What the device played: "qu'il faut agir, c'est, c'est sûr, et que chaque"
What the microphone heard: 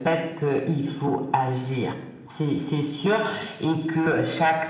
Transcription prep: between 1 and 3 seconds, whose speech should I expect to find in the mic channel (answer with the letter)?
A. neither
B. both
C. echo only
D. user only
C